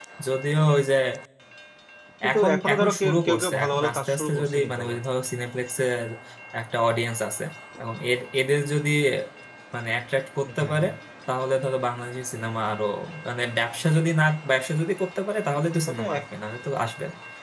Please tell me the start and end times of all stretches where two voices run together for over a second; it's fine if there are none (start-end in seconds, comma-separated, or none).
2.3-5.0